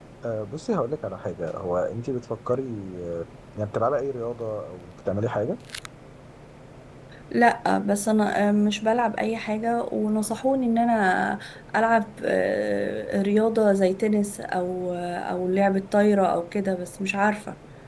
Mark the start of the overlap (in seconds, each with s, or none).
none